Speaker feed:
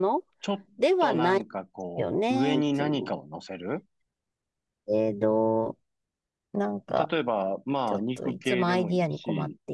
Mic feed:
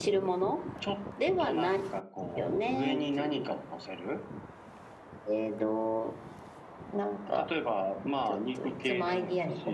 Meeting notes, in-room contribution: none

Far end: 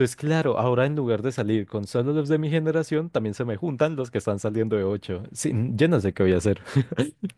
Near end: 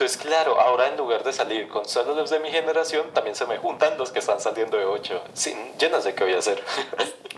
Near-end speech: none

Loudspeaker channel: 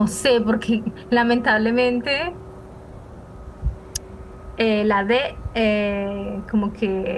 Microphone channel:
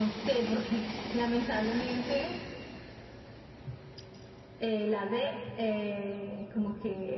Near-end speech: none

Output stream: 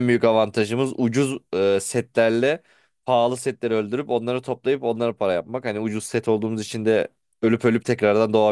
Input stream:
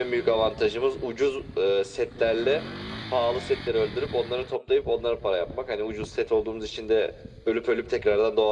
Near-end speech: none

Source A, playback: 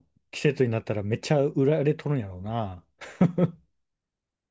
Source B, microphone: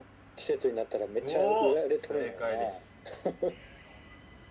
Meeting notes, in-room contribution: present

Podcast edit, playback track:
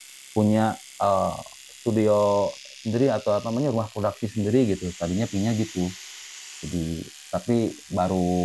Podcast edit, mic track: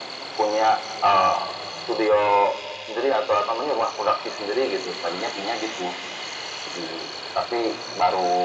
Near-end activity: none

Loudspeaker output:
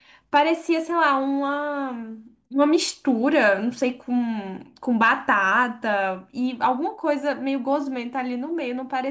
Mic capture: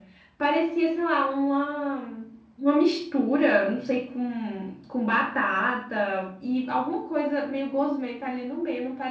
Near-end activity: none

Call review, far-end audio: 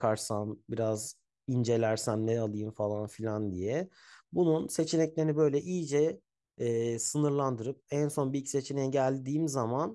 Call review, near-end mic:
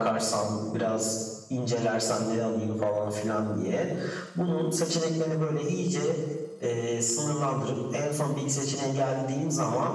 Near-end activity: none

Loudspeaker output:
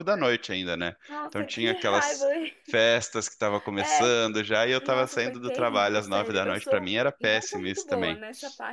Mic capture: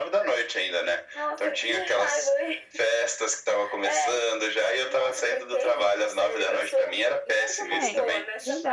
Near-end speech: present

